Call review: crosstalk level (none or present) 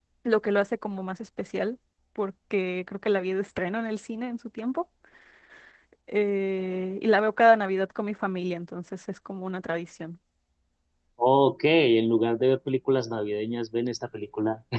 none